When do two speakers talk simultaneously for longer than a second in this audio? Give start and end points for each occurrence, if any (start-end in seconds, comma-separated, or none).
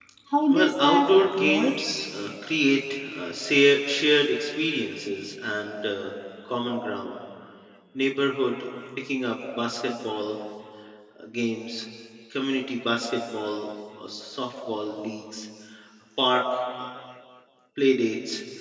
0.5-1.8